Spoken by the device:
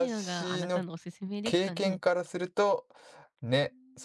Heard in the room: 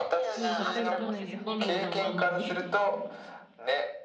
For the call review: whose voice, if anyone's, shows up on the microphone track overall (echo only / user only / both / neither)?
both